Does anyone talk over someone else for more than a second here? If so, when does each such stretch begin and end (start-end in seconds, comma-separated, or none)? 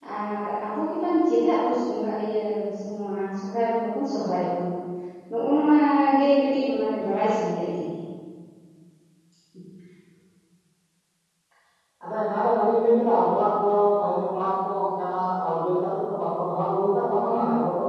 none